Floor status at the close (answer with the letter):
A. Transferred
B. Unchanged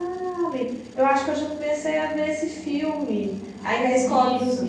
B